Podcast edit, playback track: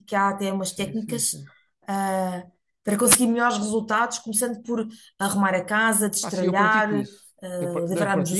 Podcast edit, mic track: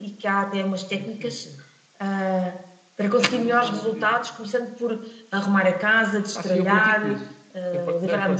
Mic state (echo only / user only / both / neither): both